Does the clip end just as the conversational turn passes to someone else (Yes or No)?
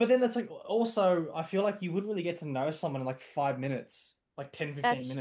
No